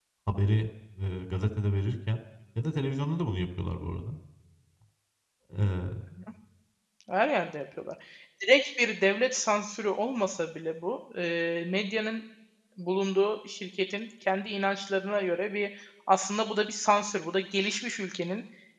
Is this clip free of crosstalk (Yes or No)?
Yes